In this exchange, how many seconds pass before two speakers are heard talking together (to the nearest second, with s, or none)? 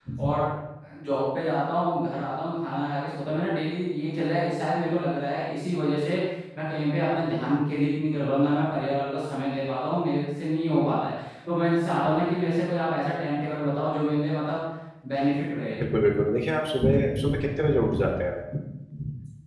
none